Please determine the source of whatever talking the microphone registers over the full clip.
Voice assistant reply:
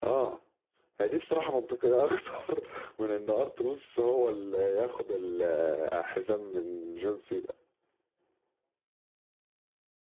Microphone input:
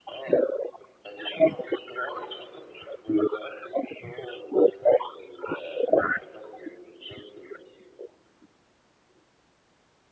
echo only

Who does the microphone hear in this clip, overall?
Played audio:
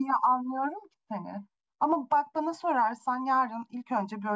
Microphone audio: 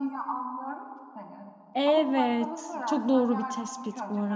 both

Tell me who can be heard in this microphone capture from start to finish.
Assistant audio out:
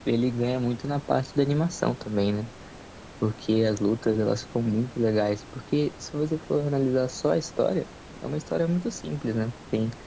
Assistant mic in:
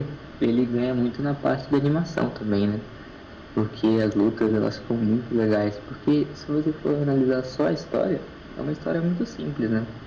echo only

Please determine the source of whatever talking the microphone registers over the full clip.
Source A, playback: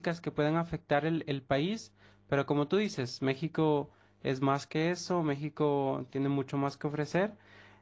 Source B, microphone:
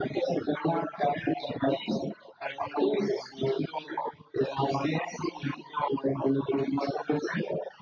echo only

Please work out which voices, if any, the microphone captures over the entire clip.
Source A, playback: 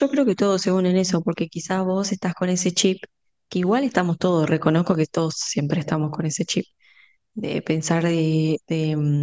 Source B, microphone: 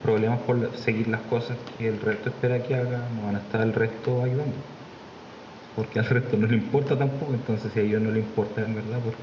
user only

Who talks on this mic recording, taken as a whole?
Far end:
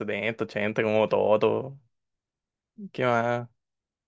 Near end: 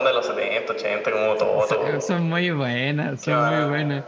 both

